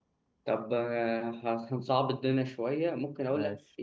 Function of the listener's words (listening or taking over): listening